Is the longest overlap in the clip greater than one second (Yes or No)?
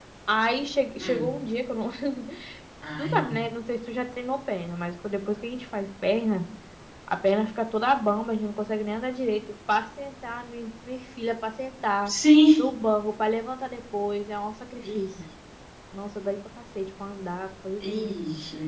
No